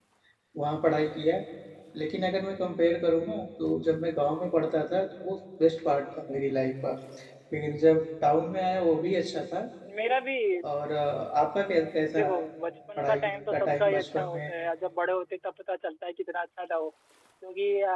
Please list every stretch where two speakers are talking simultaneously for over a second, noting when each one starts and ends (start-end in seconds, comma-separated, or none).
13.0-14.5